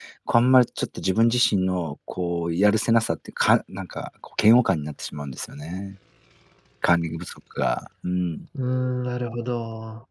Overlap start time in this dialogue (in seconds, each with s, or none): none